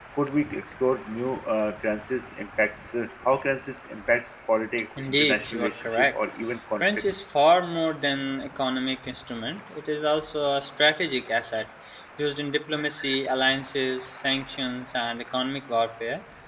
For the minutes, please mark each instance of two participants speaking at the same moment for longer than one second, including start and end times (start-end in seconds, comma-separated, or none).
5.0-6.2